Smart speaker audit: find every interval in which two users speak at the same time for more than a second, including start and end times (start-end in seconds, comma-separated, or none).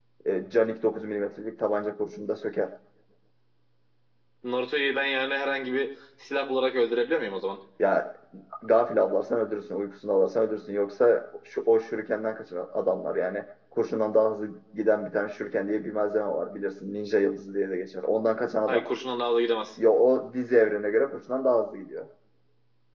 none